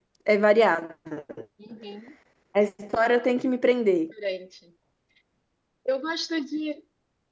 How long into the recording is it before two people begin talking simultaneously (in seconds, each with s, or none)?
none